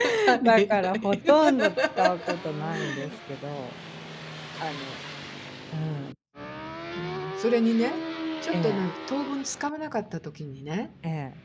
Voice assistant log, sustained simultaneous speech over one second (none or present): present